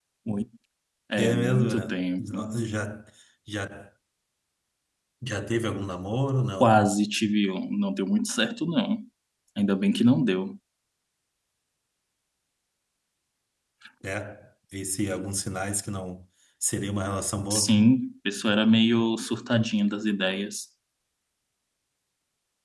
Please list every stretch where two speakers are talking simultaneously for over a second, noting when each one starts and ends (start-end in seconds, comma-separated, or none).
1.2-2.5